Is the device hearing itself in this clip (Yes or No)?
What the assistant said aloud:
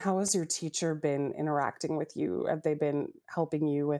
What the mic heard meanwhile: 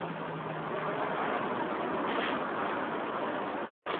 No